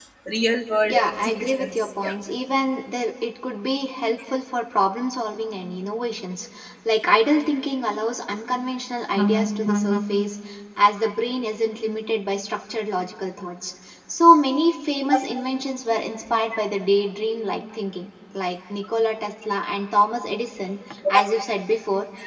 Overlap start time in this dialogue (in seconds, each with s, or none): 0.9 s